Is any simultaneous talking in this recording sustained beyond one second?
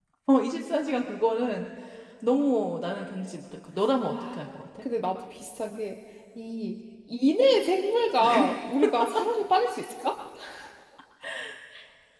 No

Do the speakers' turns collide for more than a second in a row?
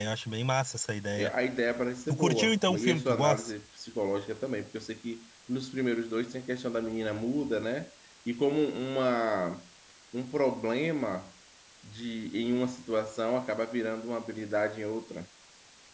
Yes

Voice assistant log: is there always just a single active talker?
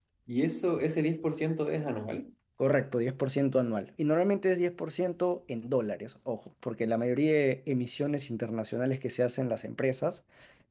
Yes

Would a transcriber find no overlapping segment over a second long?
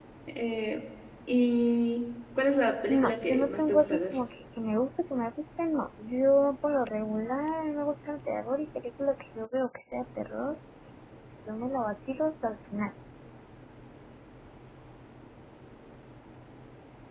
No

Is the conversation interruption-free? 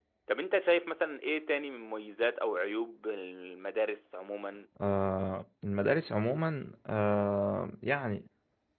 Yes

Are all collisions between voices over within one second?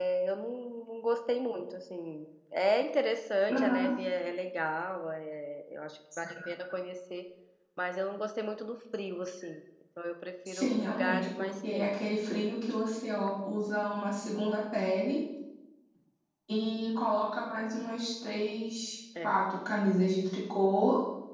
No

